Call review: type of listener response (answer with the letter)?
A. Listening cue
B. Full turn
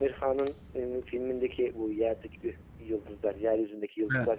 A